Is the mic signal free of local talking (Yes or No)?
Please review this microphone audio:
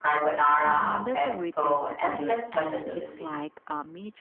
No